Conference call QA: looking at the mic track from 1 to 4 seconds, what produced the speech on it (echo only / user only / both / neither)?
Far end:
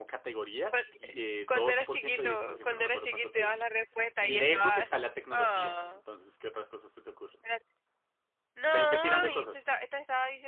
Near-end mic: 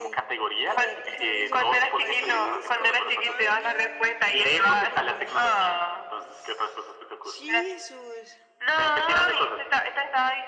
both